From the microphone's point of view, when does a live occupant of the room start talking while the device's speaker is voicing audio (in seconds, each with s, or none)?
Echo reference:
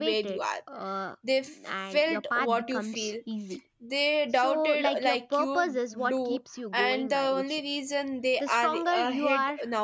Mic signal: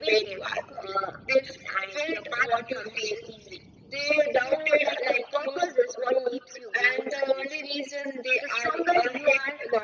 none